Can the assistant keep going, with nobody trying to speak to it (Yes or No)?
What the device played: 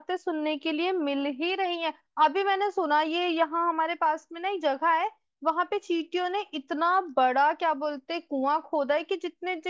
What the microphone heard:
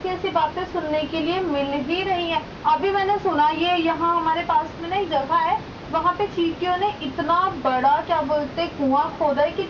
Yes